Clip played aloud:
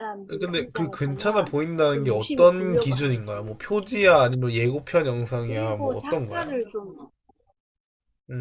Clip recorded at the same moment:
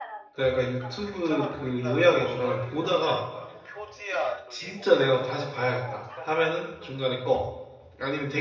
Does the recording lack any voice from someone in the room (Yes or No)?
No